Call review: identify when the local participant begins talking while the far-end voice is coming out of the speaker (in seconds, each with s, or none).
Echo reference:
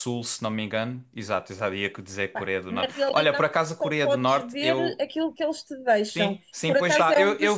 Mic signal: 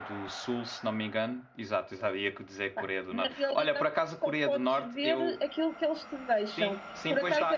none